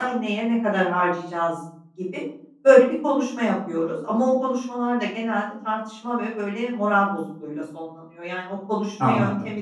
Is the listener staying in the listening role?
Yes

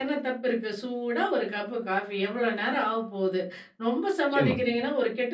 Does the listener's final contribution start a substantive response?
No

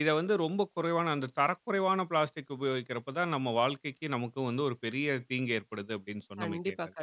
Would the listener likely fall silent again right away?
No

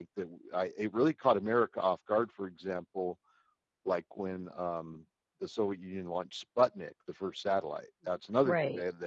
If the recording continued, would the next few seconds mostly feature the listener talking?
No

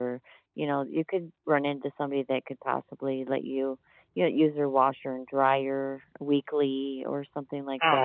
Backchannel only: No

